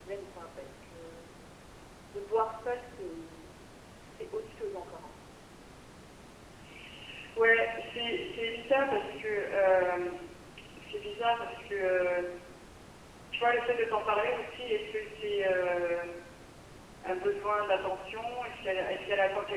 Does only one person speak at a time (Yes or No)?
Yes